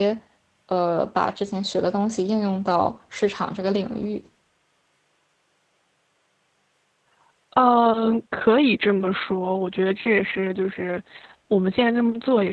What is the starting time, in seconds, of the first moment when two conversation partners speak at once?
none

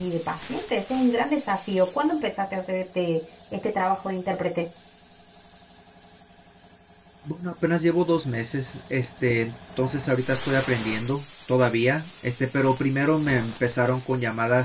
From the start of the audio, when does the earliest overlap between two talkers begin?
none

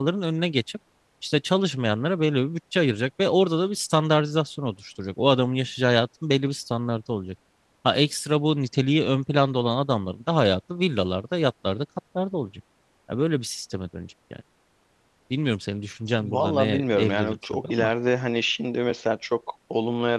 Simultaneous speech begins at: 16.2 s

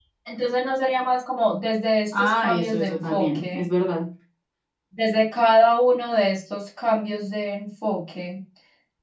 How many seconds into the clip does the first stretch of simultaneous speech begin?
2.1 s

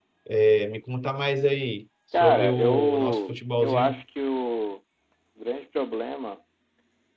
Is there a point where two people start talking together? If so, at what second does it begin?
2.1 s

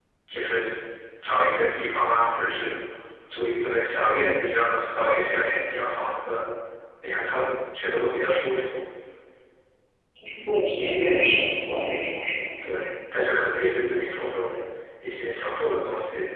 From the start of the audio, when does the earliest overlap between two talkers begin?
none

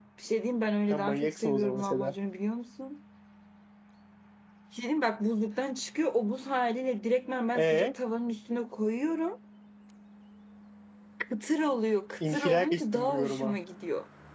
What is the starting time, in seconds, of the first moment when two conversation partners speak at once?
0.9 s

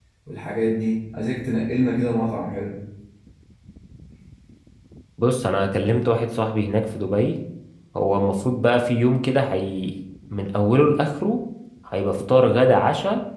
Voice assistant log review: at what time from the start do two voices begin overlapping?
none

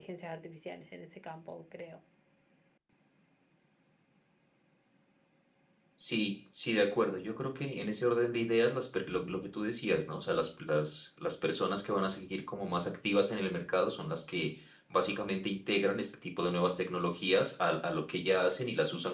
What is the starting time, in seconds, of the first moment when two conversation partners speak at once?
none

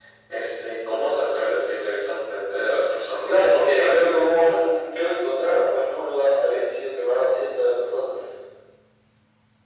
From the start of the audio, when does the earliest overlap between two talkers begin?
3.3 s

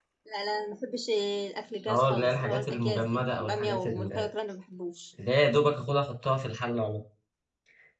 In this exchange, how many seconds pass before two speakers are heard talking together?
1.9 s

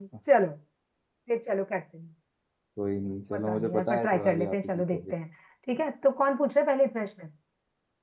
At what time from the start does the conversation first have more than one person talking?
3.3 s

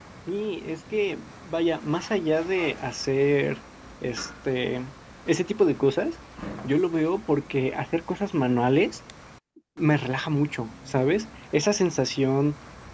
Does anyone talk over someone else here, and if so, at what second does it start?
none

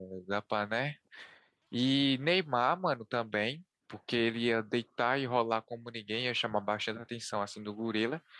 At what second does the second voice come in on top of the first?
none

